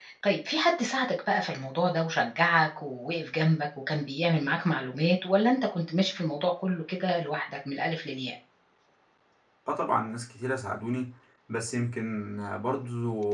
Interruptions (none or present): none